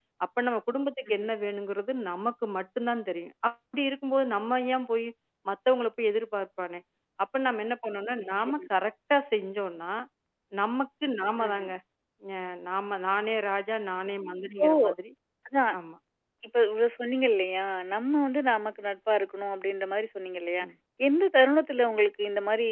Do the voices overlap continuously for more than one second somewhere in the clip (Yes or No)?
No